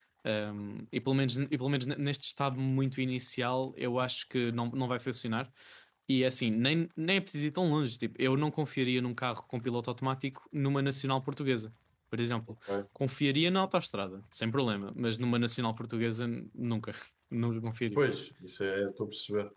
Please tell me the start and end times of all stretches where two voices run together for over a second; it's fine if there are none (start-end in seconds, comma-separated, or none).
none